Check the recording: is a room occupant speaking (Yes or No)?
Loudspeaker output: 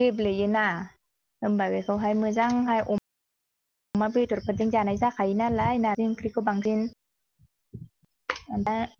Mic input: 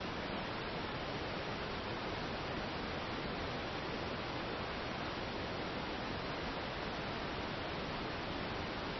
No